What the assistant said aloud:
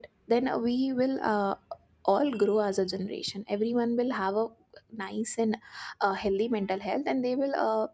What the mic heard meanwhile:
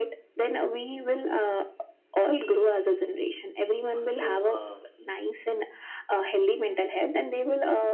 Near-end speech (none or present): present